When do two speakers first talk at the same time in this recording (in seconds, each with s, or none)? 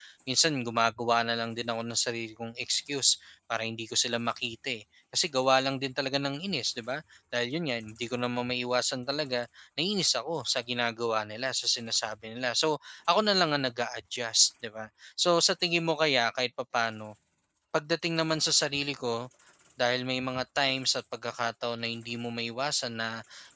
none